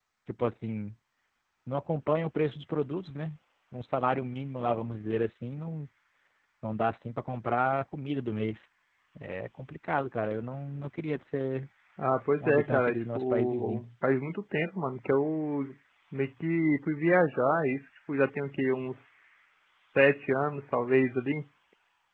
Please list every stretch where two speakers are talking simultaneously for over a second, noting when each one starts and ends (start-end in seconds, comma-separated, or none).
12.4-13.8